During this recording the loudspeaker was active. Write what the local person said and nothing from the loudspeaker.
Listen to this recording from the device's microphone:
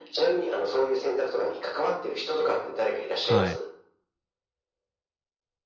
はい。

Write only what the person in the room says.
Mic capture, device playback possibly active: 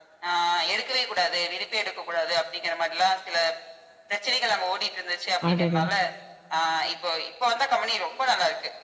அடடா!

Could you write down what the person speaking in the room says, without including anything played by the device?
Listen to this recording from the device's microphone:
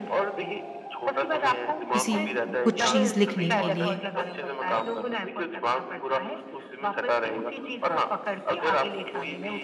किसी कु कुछ चीज़ लिखने के लिए।

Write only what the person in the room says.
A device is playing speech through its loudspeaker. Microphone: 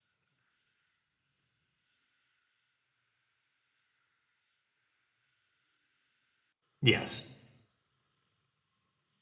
yes

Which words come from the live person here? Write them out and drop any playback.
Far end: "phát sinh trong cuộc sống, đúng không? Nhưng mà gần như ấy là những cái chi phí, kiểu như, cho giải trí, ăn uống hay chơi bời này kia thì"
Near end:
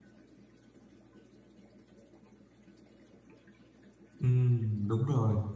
Ừm, đúng rồi.

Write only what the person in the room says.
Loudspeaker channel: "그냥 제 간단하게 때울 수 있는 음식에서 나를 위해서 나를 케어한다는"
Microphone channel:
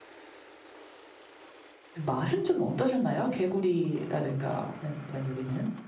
맛은 좀 어떠셨나요? 개구리라든가는 이런 요리는?

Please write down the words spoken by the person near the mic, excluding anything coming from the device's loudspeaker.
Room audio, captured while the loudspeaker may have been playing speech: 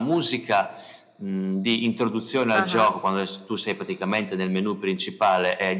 Ah-ah.

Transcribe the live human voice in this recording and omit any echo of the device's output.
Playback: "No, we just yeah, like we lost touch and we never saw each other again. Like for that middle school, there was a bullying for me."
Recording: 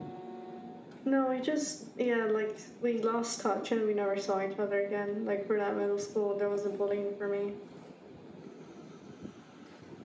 none

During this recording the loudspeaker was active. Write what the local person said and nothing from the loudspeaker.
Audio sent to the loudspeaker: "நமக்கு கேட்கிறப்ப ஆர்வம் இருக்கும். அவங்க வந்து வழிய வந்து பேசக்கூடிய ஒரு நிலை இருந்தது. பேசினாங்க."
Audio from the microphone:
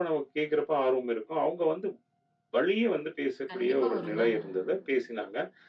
கண்டிப்பா வருங்க.

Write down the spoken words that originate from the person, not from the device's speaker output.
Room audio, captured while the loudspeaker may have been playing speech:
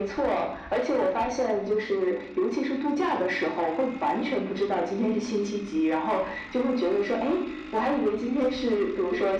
none

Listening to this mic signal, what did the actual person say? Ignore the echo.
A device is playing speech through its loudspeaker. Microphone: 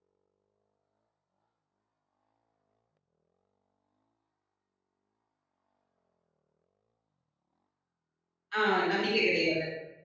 ஆ நம்பிக்கை கிடையாது.

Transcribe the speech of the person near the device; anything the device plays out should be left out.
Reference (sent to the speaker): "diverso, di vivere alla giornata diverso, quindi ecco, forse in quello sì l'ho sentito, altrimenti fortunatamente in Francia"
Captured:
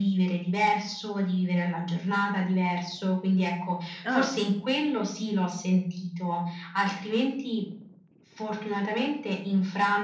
Ah,

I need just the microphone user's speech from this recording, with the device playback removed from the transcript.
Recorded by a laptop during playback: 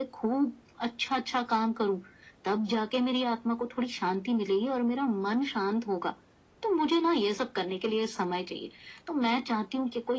none

